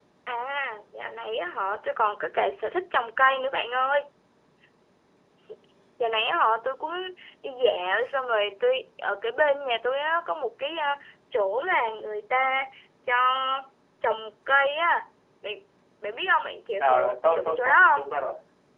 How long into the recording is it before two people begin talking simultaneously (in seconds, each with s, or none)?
16.8 s